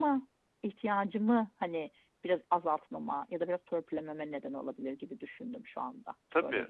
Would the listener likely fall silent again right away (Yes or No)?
No